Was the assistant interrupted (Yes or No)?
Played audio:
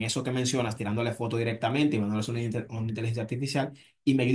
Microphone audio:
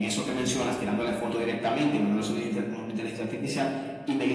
No